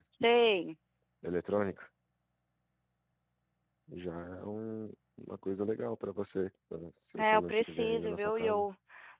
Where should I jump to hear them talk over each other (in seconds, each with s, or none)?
7.2 s